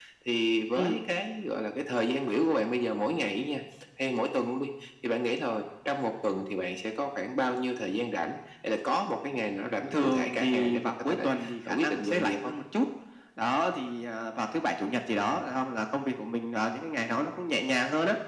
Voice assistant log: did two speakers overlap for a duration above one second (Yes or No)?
Yes